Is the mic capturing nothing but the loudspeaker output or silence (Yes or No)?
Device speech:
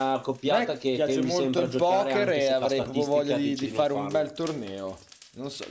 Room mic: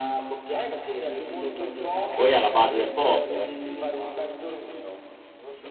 No